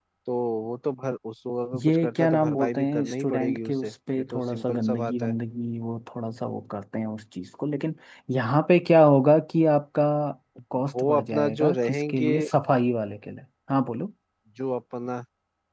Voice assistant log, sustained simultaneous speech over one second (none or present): present